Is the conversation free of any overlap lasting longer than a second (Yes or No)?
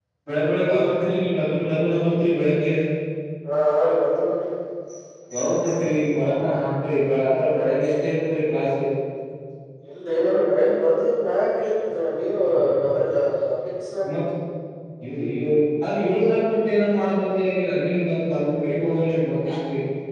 Yes